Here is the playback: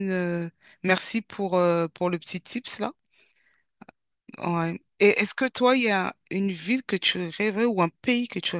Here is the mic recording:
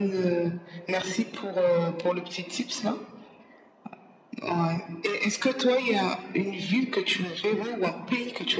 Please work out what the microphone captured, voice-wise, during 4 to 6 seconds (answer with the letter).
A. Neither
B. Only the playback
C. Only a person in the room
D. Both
B